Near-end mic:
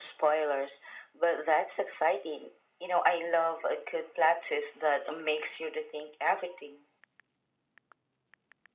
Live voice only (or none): none